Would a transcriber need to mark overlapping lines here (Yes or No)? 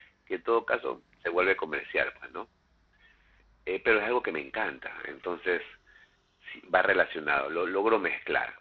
No